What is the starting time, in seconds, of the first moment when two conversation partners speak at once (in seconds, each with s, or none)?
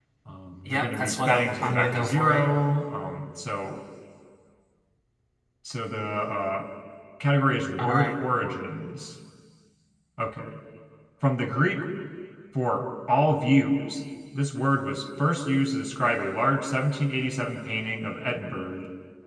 0.7 s